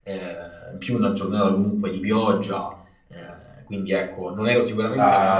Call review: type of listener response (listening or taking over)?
taking over